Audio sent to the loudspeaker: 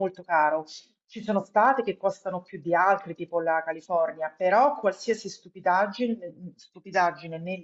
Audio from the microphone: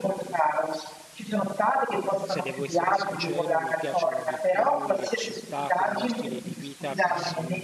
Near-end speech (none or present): present